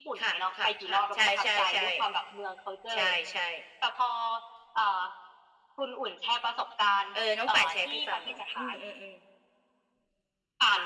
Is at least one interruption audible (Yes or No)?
Yes